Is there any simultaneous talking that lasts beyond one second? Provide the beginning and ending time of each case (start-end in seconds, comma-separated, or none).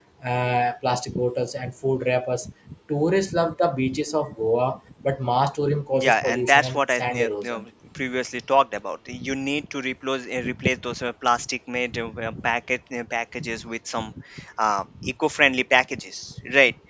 6.0-7.6